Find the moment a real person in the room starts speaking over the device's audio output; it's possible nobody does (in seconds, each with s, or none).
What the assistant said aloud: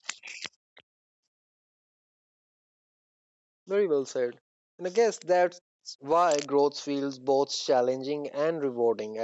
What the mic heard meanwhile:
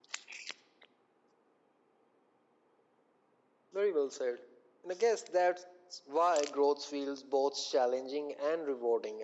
none